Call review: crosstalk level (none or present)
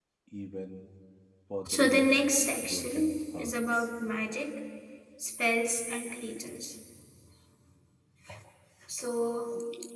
present